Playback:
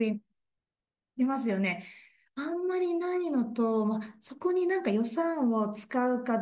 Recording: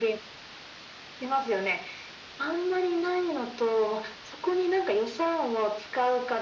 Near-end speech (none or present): none